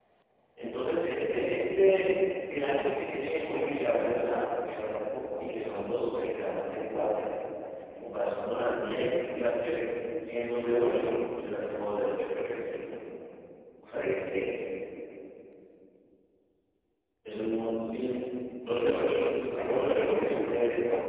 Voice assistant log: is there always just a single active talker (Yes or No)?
No